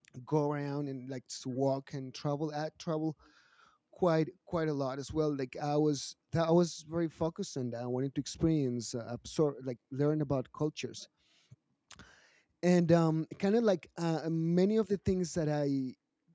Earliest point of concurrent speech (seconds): none

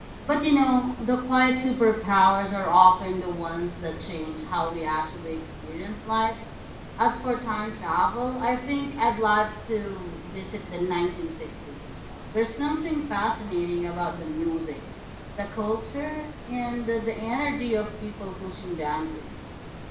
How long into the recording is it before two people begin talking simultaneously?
none

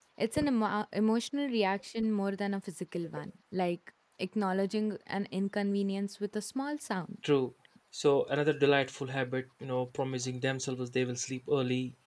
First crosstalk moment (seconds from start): none

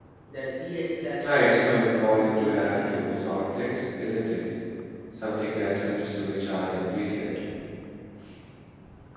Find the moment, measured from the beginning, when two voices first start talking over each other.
1.2 s

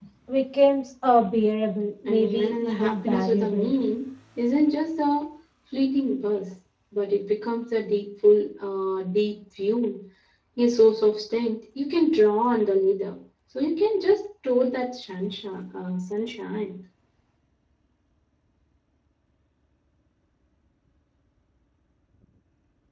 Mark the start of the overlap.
2.1 s

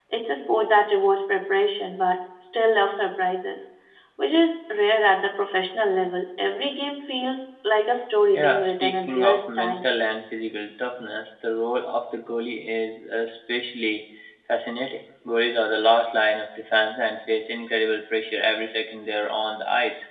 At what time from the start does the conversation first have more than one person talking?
8.3 s

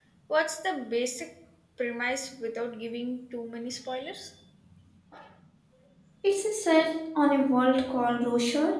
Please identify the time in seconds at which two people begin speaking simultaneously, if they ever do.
none

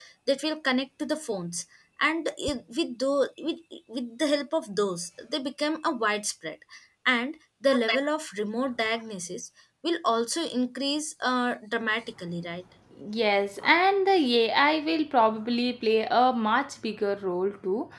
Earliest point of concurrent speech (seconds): none

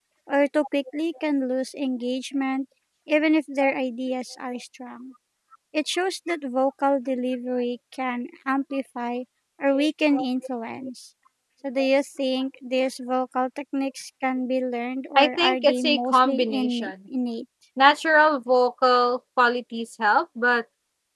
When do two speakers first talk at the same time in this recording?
15.2 s

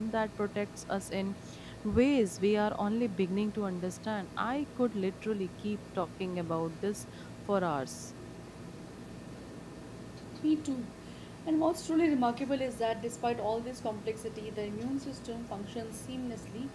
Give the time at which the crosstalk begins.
none

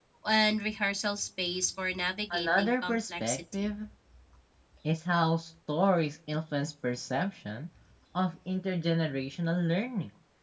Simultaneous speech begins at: 2.3 s

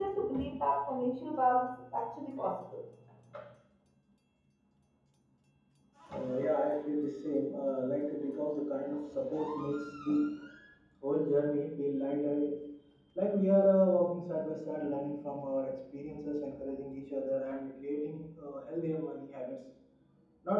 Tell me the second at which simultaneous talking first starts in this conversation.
none

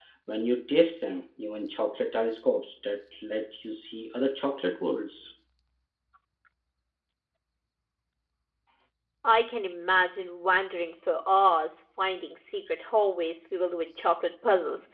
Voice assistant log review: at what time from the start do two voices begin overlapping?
none

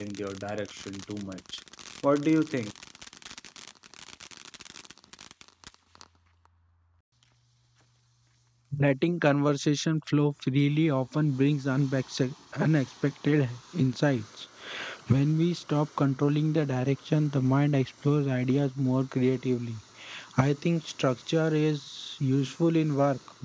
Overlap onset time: none

